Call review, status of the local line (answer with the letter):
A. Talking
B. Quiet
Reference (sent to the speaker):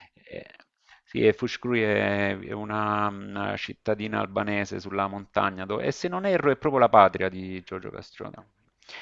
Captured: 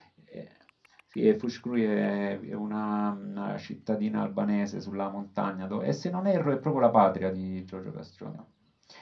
B